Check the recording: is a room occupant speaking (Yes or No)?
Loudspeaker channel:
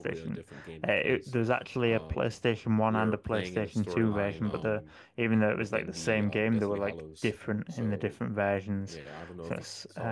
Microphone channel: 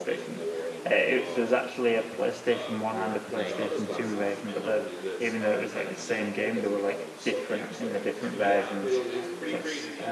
Yes